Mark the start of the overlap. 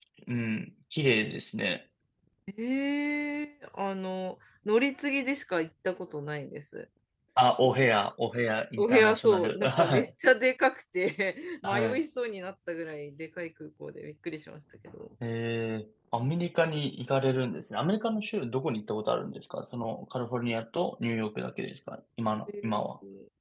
9 s

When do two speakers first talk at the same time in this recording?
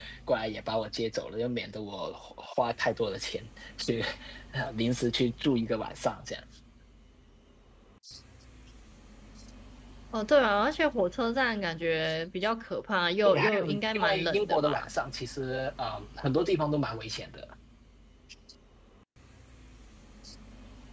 13 s

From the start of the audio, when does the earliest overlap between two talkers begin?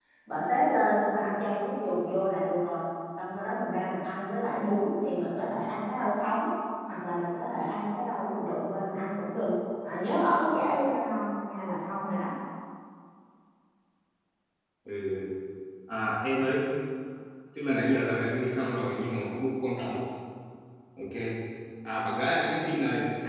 none

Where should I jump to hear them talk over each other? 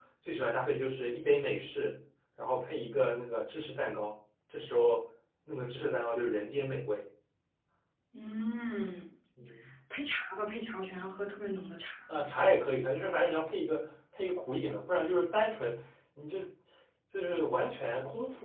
none

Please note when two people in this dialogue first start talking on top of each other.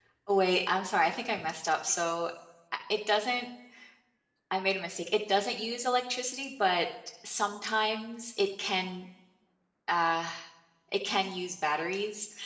none

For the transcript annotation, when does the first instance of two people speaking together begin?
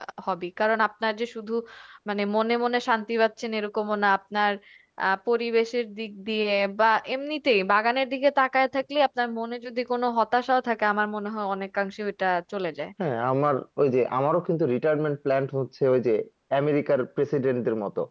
none

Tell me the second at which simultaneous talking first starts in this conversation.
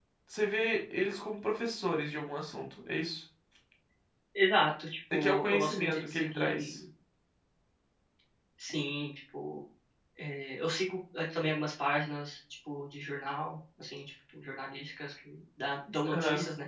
5 s

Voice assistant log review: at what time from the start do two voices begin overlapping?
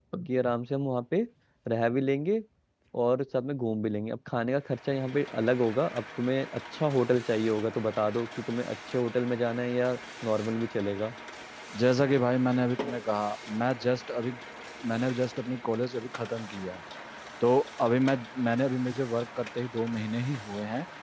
none

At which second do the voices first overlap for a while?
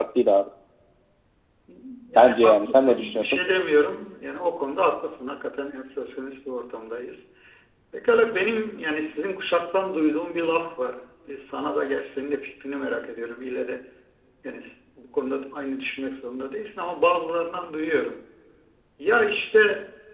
2 s

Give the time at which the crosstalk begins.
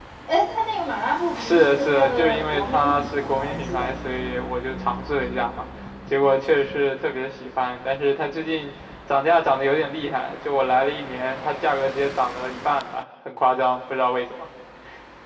1 s

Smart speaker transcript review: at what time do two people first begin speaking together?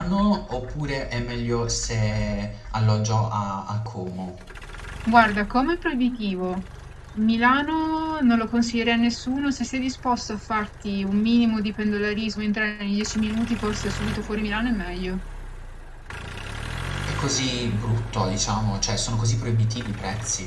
none

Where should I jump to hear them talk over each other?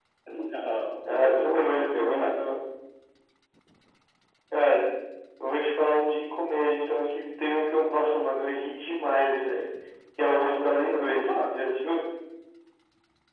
1 s

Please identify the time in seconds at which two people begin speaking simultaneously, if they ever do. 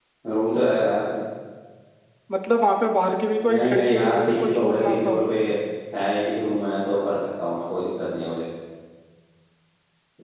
3 s

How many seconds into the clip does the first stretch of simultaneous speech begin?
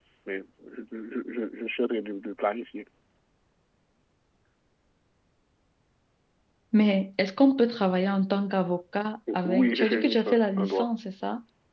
9 s

